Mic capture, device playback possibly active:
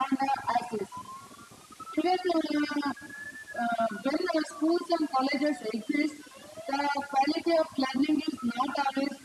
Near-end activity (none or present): none